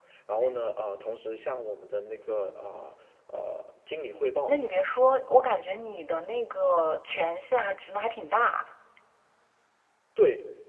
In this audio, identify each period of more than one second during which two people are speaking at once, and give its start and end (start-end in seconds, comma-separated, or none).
none